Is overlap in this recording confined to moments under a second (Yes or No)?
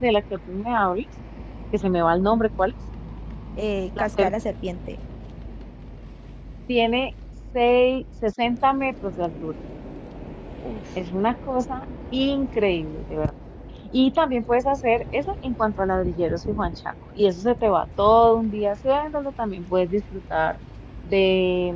Yes